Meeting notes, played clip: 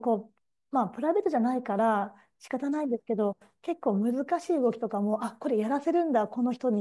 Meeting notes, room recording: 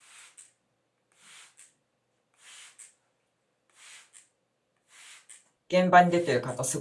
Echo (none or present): none